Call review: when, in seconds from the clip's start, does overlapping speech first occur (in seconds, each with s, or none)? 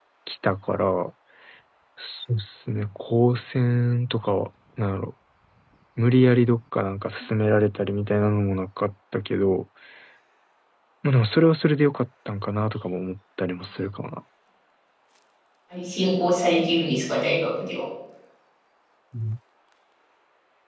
none